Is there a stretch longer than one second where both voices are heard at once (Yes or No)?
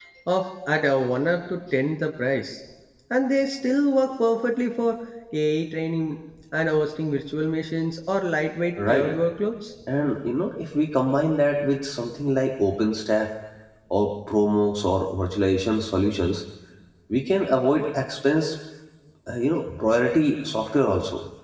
No